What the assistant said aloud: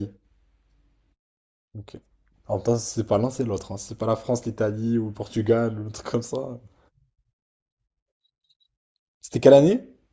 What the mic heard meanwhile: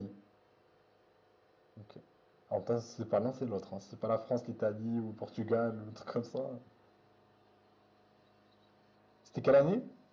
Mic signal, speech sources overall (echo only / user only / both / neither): echo only